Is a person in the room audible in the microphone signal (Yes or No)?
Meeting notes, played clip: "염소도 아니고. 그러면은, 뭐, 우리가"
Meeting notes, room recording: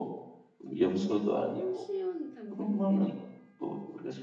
Yes